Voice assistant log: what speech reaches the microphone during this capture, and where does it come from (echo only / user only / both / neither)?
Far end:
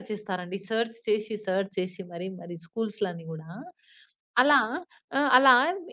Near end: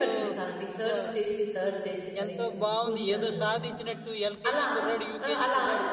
both